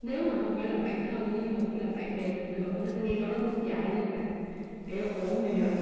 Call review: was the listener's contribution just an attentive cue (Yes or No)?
Yes